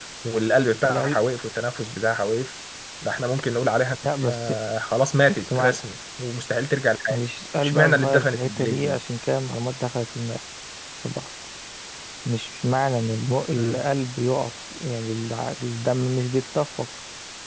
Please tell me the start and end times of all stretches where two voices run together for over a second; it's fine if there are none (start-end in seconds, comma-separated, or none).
7.6-9.0